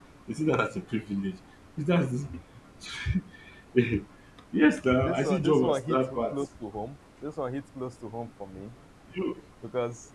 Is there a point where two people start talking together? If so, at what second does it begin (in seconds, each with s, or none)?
5.0 s